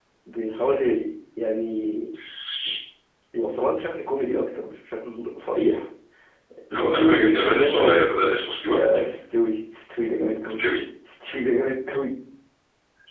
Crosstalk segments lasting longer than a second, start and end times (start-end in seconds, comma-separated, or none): 6.7-8.3